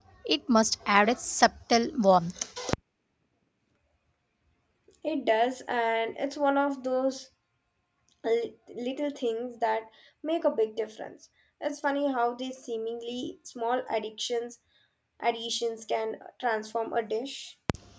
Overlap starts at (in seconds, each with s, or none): none